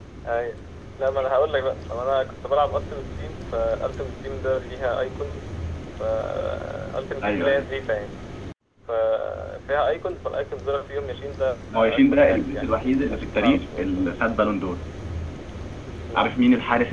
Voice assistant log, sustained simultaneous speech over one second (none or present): present